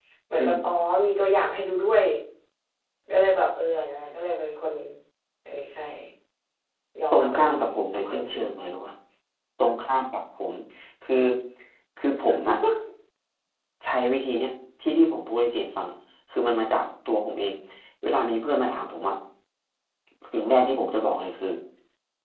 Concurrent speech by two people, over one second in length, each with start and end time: 7.1-8.4

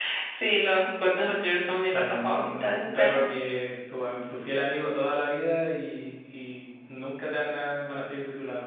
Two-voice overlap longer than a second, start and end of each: 1.6-3.2

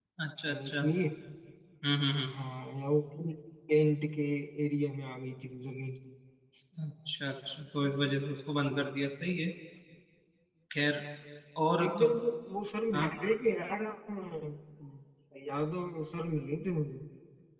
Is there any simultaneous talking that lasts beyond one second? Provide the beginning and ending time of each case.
none

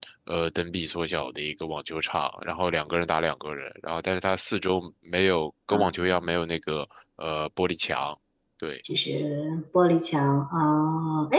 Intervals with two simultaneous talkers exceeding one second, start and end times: none

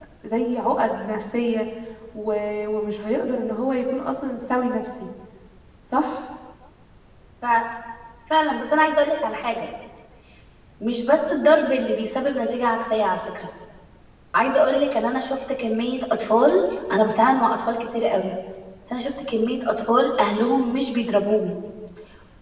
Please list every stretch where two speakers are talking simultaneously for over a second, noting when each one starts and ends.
none

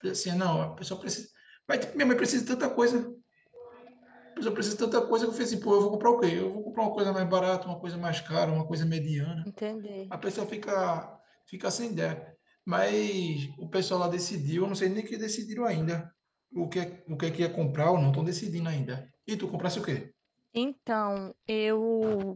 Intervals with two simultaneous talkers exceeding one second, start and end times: none

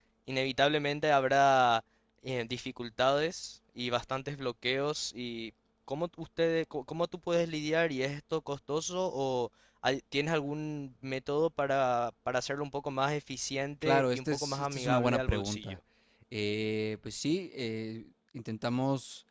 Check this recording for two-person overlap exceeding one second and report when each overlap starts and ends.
13.8-15.8

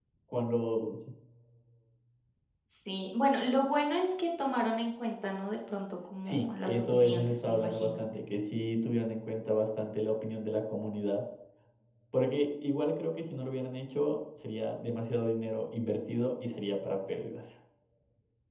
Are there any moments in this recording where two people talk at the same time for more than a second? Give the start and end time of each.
6.3-7.9

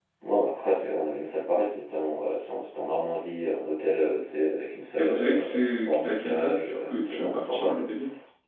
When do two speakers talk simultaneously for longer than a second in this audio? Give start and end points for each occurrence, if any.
5.0-7.9

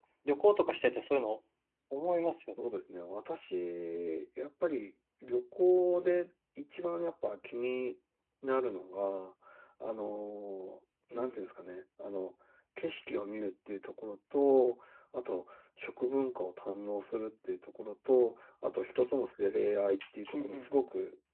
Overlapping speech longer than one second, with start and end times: none

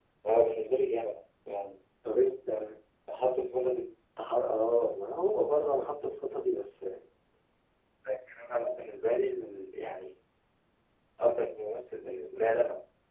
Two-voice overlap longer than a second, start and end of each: none

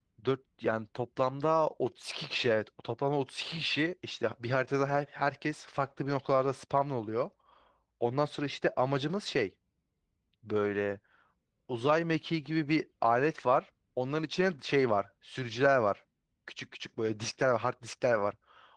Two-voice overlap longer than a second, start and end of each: none

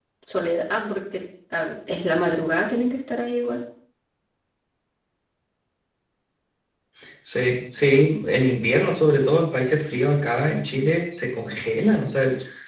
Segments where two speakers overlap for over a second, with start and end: none

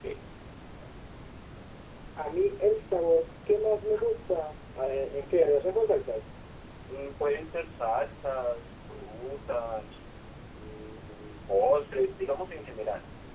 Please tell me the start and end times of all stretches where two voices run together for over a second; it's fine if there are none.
none

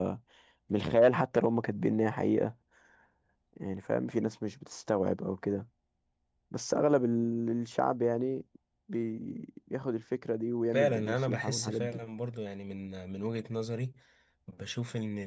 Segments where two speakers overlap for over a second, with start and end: 10.7-12.0

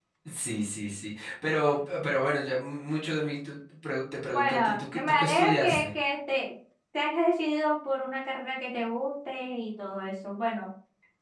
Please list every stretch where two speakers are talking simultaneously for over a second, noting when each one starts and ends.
4.3-5.8

